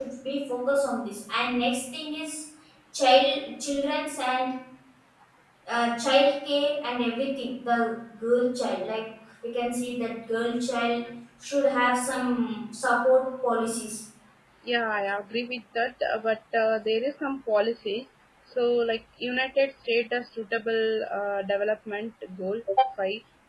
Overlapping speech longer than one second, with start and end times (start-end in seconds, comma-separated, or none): none